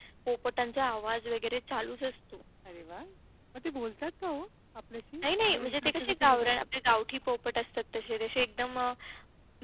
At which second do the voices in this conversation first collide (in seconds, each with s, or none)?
5.2 s